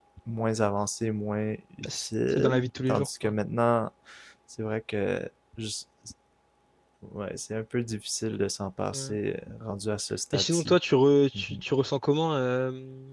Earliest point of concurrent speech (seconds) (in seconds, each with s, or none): 1.9 s